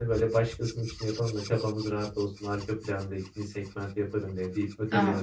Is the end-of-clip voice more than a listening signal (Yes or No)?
Yes